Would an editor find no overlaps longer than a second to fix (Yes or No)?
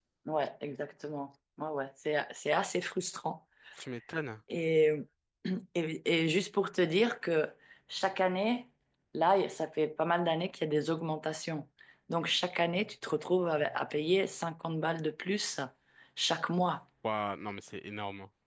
Yes